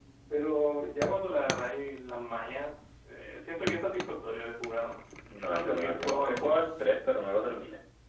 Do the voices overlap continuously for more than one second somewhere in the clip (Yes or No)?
Yes